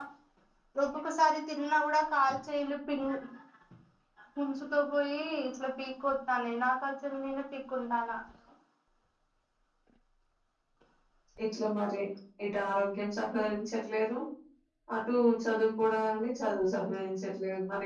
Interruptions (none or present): none